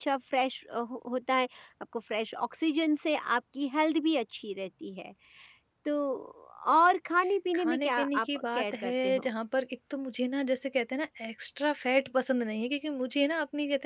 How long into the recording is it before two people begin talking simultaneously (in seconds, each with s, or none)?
7.6 s